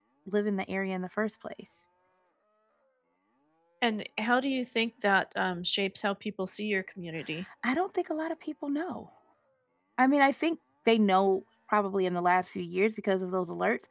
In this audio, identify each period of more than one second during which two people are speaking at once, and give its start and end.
none

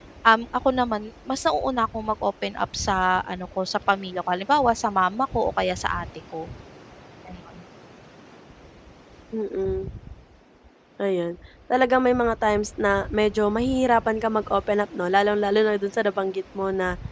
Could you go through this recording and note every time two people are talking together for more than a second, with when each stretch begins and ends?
none

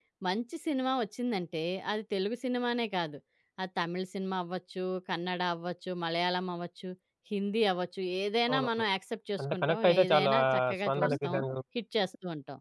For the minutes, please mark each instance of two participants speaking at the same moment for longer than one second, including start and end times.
9.4-11.4

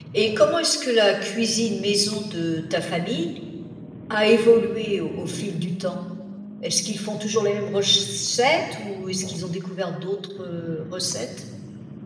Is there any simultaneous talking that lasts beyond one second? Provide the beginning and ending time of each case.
none

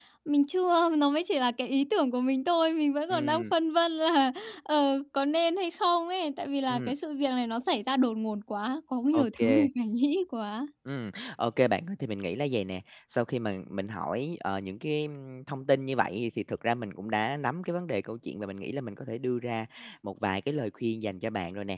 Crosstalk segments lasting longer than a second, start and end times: none

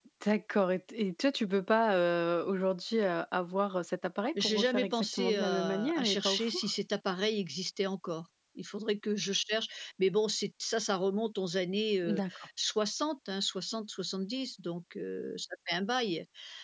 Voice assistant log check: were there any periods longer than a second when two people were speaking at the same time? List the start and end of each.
4.4-6.6

